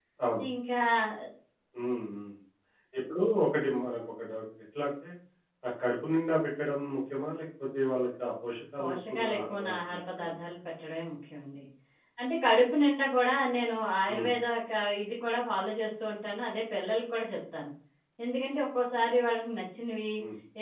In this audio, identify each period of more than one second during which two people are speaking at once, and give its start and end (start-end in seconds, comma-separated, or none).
8.8-10.4